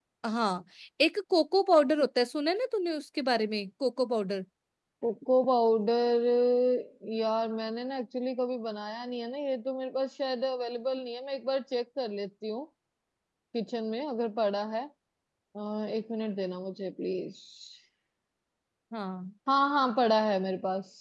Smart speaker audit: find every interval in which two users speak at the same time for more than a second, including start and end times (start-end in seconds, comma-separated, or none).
none